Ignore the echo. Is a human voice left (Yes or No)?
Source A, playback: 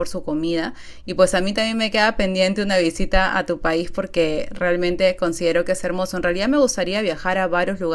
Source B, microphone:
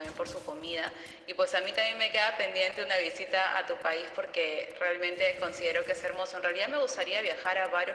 No